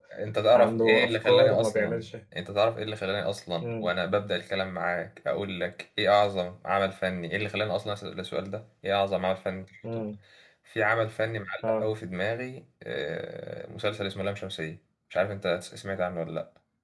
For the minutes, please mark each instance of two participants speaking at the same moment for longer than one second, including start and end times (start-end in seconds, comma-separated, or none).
0.5-2.1